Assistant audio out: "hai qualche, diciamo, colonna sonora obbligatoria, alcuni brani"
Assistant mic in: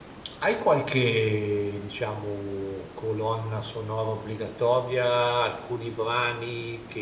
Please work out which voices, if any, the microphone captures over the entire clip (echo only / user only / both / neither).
echo only